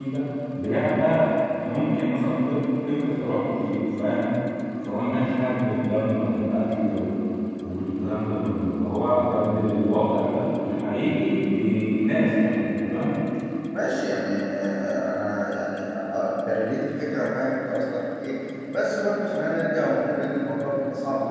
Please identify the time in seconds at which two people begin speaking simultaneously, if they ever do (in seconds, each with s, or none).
none